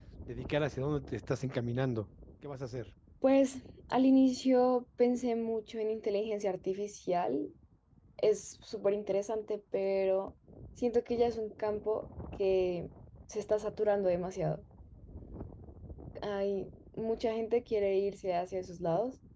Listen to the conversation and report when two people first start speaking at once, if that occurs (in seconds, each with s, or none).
none